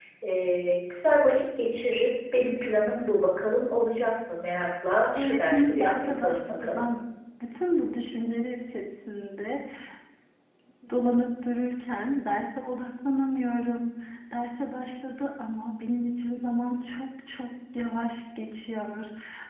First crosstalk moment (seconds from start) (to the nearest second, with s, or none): 5 s